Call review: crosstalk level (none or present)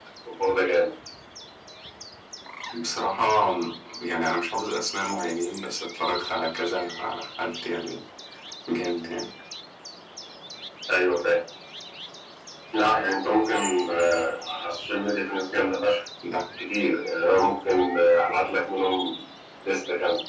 none